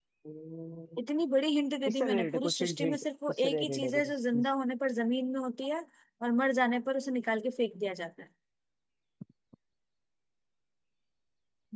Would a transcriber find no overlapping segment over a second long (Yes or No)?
No